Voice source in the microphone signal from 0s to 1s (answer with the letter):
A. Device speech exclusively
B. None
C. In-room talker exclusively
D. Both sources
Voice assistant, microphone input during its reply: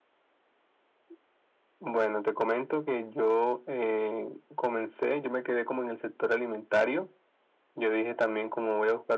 B